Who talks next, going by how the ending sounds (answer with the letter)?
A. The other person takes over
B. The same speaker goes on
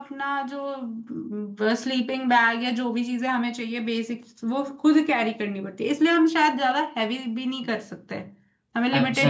A